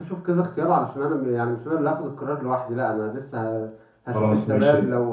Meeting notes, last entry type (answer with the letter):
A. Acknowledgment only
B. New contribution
A